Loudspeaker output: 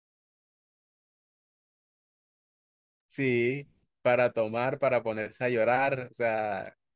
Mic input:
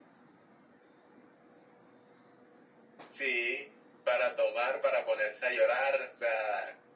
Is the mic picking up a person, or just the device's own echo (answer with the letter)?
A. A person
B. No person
B